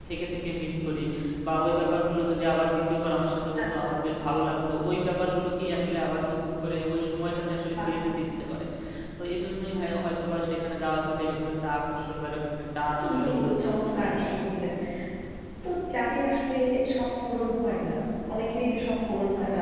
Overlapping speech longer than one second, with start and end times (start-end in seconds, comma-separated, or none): 12.9-14.2